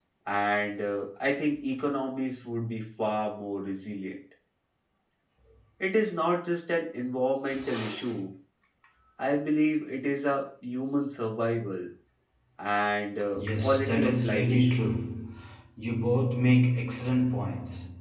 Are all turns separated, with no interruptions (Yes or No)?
No